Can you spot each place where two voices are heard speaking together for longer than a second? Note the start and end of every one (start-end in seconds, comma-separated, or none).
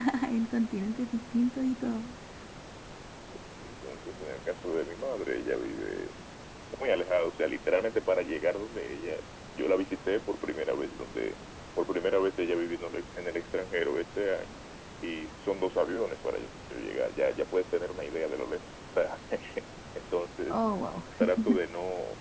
none